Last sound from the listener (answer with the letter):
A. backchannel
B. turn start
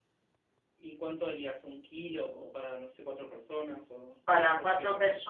B